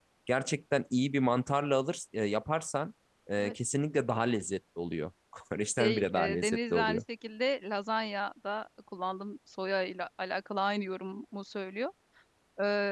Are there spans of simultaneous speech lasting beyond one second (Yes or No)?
Yes